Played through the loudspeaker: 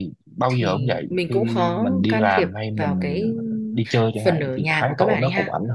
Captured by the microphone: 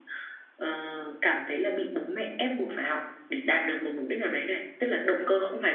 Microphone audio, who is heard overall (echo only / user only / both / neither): user only